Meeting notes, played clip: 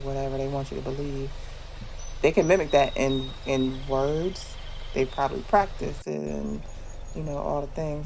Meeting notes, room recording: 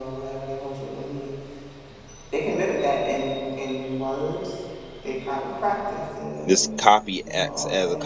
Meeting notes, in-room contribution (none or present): present